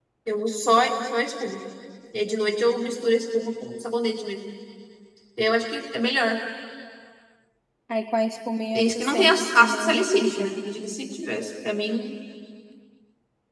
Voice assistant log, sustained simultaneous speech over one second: present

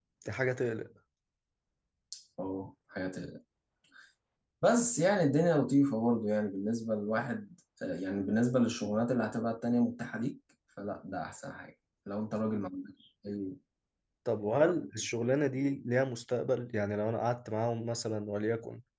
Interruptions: none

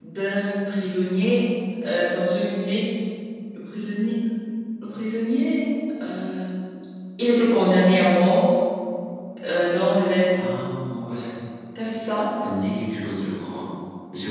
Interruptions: none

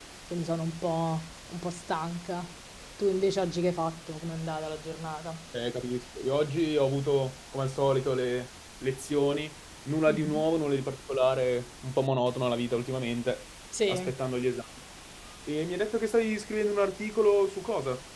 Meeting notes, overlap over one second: none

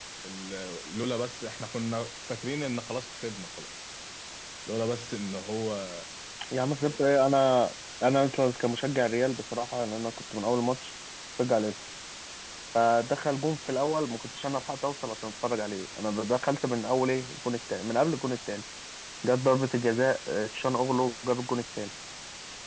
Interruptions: none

